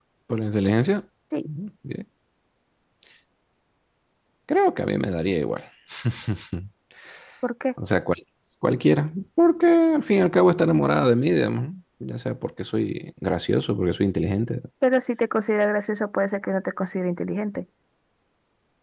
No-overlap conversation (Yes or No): Yes